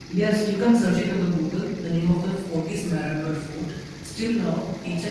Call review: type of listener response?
listening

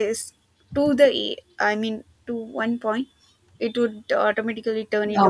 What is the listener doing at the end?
taking over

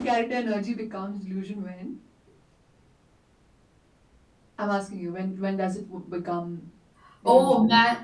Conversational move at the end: taking over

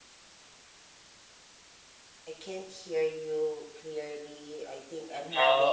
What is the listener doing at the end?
taking over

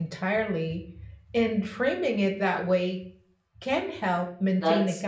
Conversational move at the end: taking over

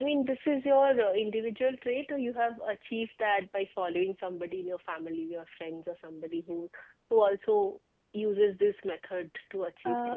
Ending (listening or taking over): taking over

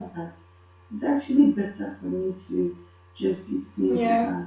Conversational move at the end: listening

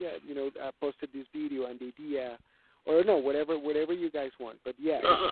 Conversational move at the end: taking over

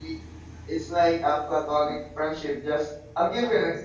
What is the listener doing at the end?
listening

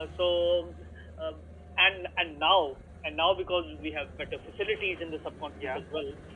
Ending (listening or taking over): listening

